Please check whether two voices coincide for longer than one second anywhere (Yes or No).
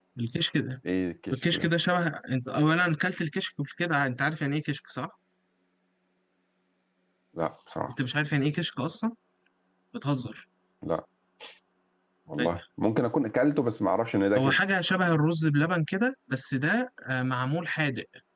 No